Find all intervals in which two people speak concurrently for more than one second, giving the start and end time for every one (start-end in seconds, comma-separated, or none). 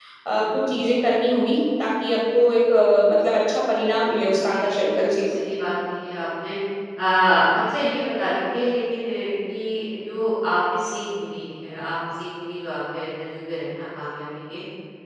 4.0-5.2